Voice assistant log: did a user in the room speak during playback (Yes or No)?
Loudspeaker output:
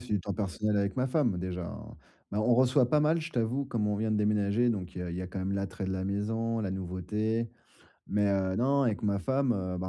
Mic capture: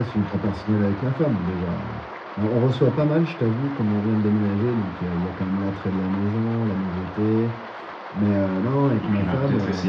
Yes